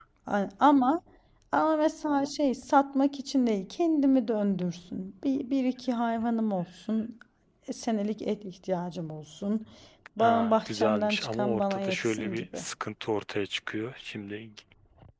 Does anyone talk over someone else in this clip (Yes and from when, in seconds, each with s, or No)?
Yes, from 10.2 s